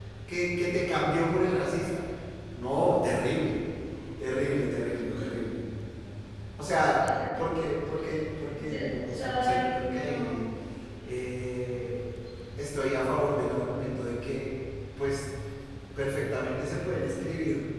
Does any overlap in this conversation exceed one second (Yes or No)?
Yes